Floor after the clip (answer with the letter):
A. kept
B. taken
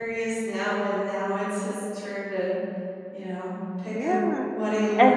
B